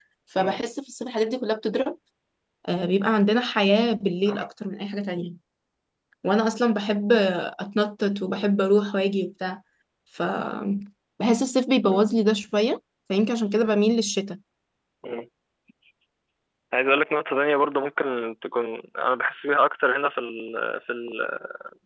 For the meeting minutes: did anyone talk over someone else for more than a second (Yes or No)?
No